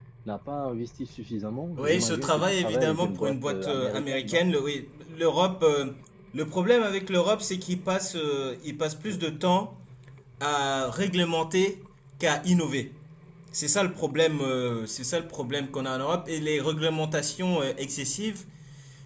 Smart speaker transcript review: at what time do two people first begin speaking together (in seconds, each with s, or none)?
1.8 s